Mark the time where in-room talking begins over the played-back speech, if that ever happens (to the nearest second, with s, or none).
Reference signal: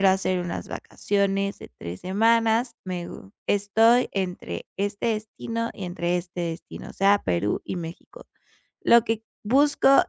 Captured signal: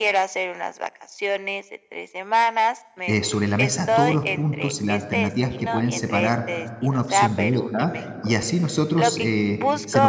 3 s